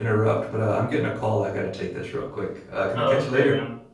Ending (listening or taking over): taking over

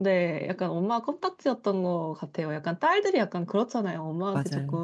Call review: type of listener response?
listening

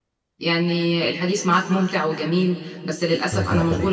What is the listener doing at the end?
listening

